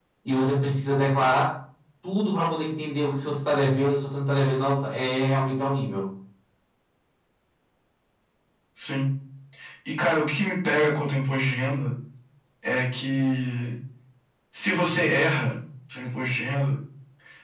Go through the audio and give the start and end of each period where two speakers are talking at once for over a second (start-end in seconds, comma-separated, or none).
none